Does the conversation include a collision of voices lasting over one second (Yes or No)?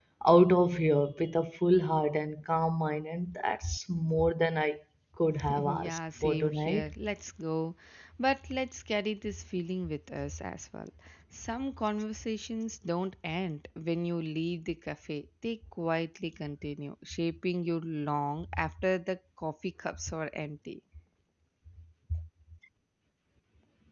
Yes